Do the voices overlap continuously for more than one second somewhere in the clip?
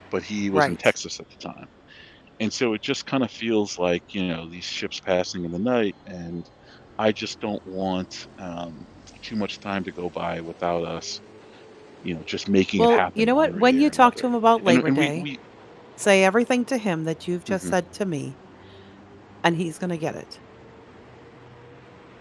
Yes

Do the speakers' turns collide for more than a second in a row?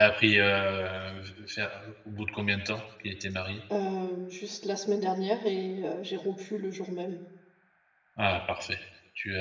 No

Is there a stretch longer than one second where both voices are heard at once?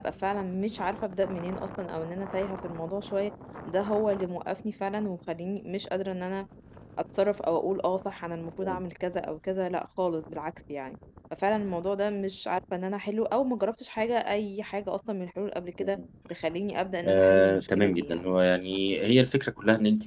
Yes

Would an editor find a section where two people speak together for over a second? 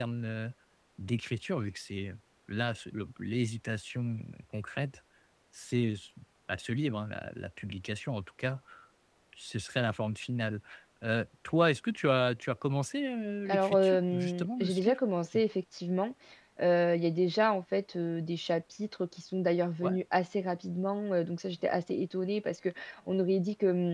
Yes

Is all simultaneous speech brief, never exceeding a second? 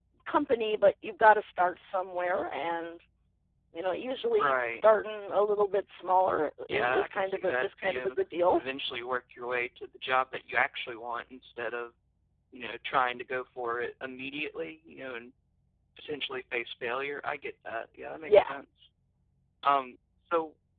No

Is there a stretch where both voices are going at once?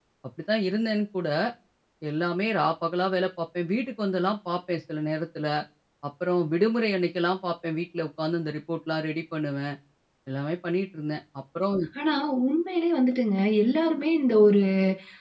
No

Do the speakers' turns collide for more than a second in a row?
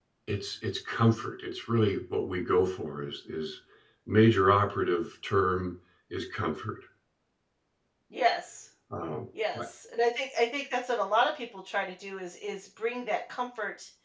No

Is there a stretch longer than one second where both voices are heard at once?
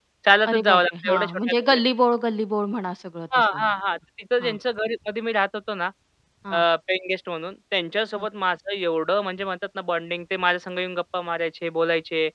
Yes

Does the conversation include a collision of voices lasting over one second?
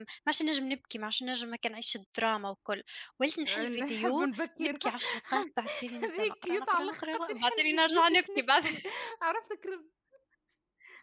Yes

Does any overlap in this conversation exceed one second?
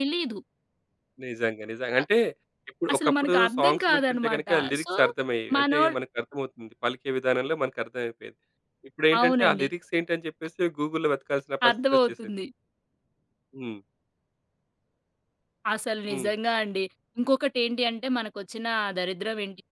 Yes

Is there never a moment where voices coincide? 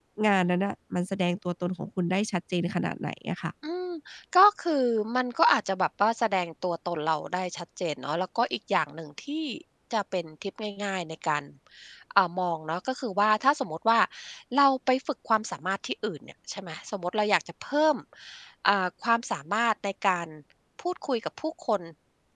Yes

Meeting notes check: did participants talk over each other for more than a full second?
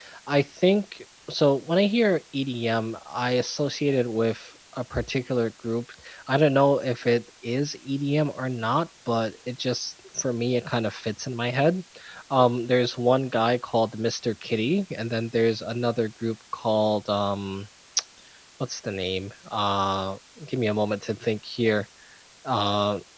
No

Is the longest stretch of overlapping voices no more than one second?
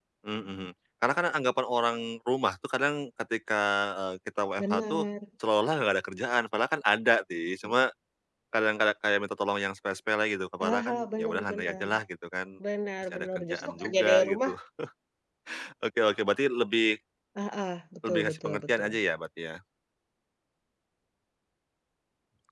No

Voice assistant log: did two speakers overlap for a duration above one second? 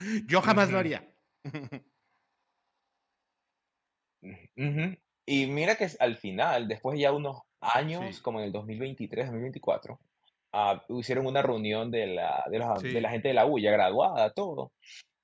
No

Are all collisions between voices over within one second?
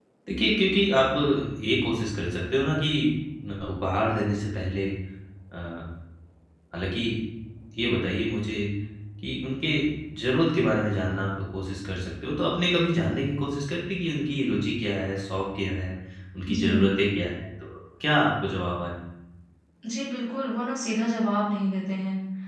Yes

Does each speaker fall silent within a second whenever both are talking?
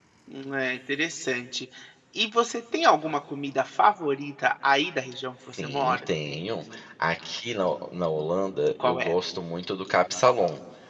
Yes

